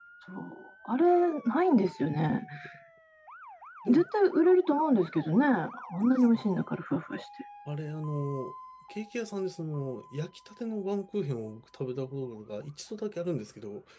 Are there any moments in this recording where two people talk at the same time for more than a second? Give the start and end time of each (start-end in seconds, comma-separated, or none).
none